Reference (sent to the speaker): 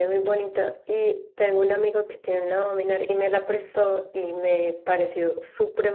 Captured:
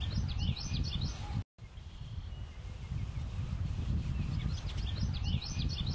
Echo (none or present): none